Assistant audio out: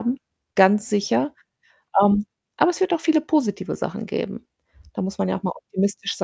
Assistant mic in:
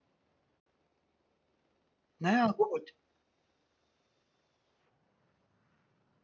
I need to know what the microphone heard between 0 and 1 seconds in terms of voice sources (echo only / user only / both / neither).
neither